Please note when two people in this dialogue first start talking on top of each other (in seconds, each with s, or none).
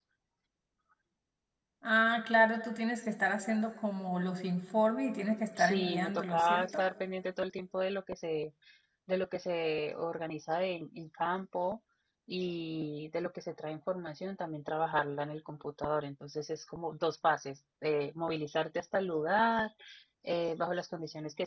5.6 s